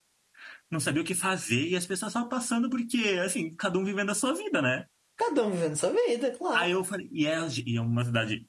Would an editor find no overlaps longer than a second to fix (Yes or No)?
Yes